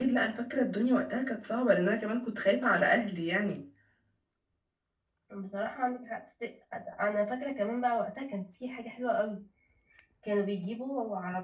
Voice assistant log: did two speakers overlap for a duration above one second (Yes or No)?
No